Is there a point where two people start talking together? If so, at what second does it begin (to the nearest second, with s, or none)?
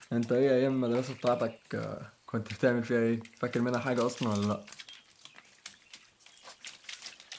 none